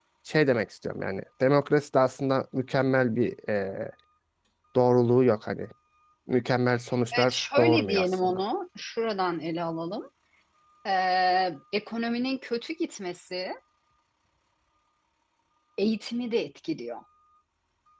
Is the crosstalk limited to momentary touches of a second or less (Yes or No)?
No